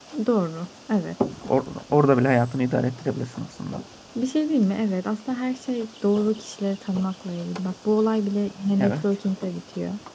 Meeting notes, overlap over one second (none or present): none